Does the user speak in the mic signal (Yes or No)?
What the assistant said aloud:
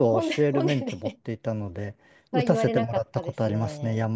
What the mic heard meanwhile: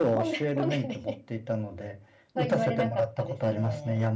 No